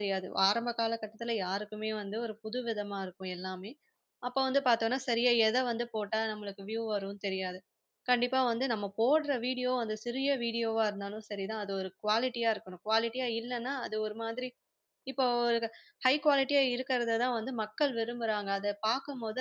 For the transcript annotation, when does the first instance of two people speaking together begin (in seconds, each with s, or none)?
none